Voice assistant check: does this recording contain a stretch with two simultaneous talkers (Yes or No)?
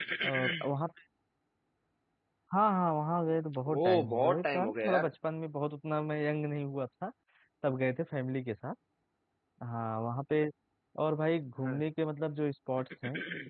Yes